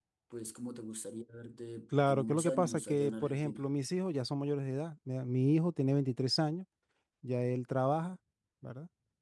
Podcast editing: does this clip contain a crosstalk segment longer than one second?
Yes, from 1.9 s

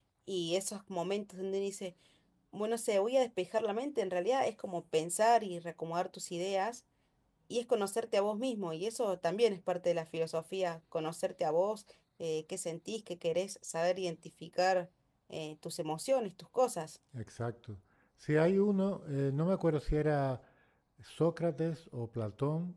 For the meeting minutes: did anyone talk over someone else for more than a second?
No

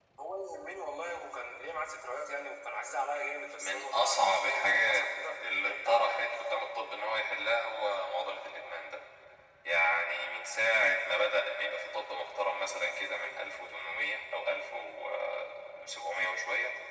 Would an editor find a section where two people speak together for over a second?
Yes, from 3.6 s

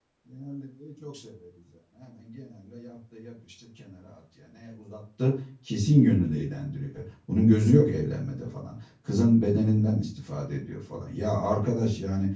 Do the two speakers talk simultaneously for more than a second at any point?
No

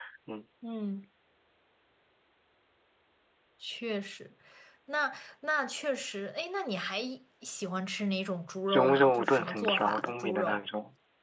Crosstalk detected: Yes, from 8.7 s

